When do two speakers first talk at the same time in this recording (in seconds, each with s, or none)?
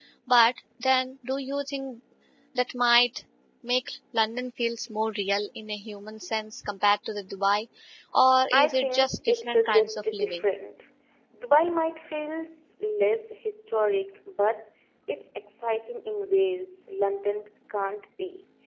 8.5 s